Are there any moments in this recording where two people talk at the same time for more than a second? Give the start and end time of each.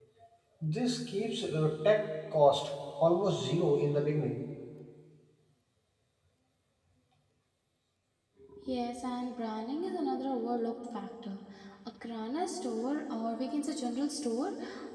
none

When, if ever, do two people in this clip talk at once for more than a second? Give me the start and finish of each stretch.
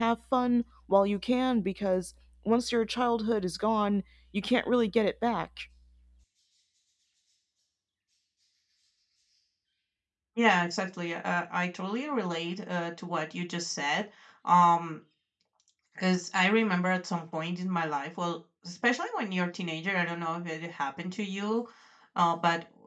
none

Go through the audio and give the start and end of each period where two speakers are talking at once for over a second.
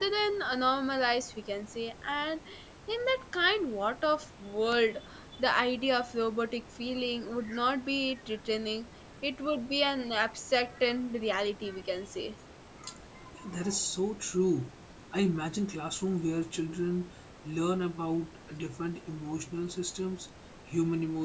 none

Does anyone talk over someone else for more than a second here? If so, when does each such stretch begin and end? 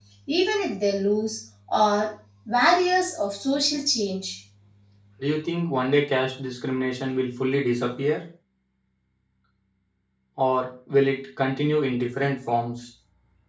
none

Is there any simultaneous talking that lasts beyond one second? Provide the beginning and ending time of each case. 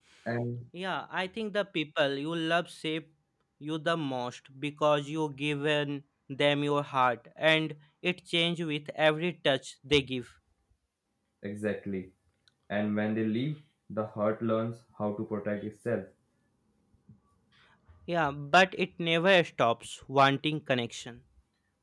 none

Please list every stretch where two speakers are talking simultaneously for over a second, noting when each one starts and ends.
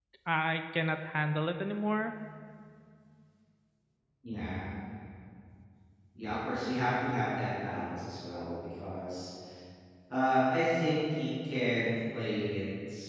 none

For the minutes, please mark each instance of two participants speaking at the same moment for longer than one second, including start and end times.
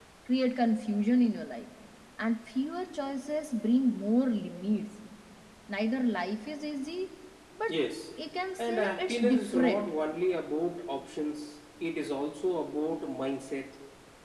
8.6-9.9

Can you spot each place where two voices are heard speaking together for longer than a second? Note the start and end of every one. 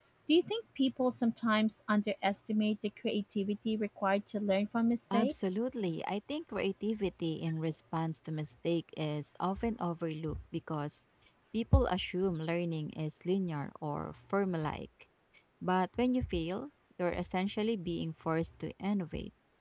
none

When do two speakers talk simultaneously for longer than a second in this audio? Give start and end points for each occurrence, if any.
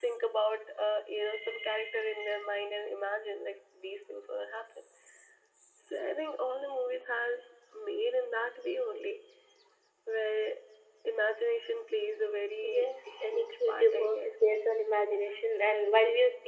12.6-14.4

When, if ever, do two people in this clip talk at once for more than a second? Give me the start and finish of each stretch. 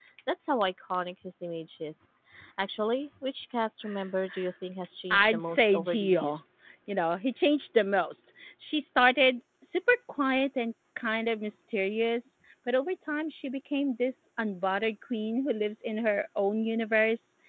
5.1-6.4

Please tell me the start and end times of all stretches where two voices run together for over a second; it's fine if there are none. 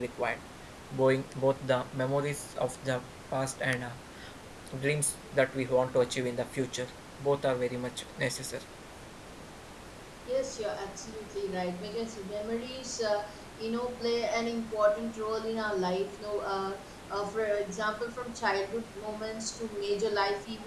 none

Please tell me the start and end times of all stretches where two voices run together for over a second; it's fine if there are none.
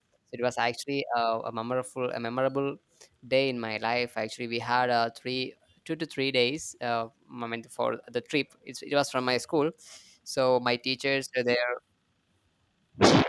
none

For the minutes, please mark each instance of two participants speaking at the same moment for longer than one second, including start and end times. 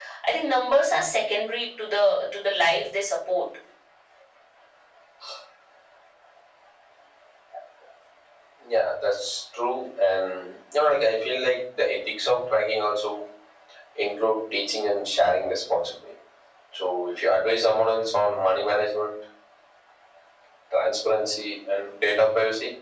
none

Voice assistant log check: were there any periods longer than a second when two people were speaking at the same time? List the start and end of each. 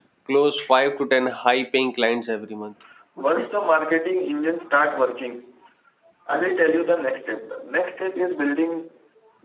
none

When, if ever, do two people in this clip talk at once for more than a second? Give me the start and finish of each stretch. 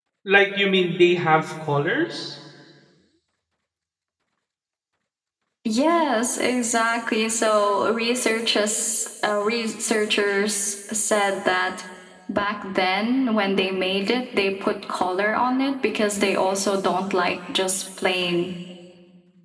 none

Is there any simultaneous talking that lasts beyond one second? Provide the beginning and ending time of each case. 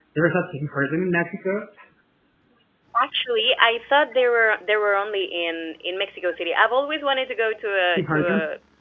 none

